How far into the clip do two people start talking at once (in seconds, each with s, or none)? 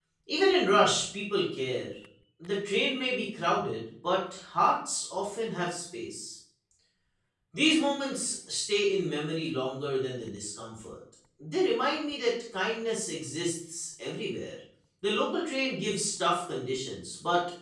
none